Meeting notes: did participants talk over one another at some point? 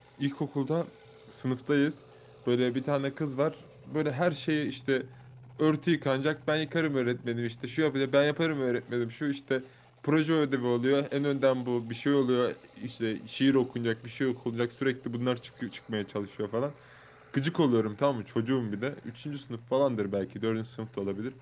No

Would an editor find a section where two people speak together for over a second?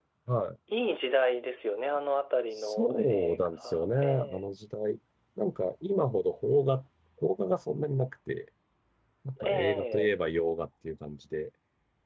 Yes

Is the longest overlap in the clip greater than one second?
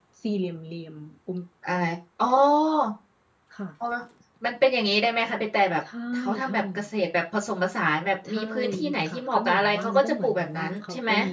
Yes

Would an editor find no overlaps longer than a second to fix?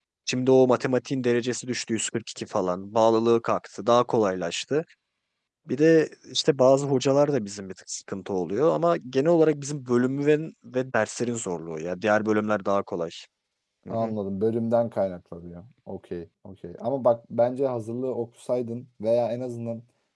Yes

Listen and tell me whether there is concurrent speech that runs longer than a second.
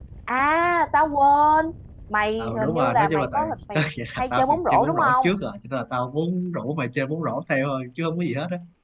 Yes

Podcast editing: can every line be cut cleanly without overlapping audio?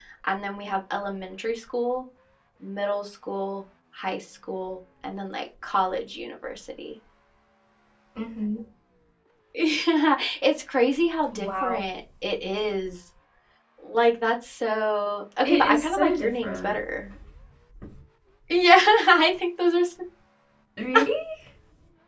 No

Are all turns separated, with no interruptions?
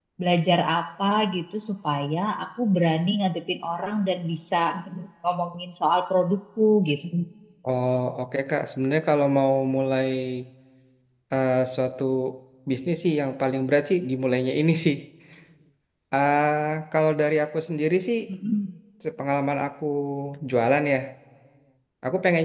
Yes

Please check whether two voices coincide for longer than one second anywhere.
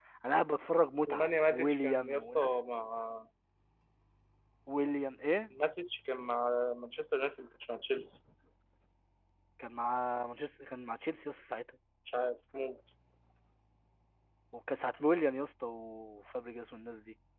Yes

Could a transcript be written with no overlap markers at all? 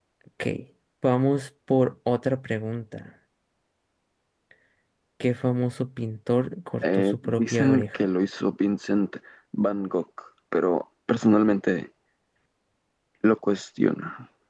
No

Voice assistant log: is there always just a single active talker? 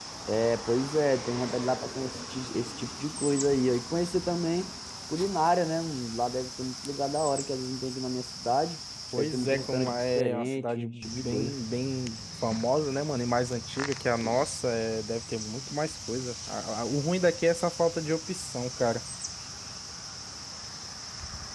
No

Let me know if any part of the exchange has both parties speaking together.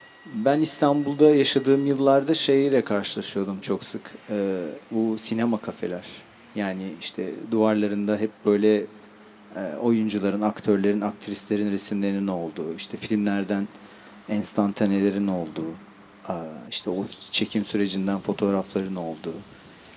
No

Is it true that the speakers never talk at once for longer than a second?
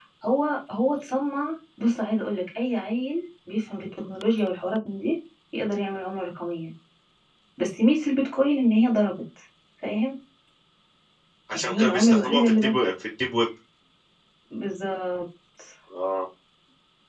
No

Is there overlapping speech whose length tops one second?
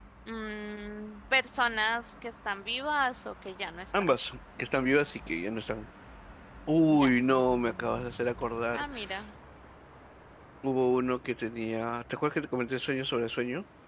No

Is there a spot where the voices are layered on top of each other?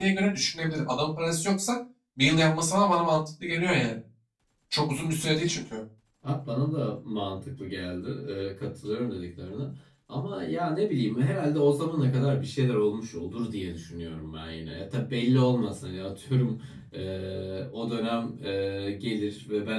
No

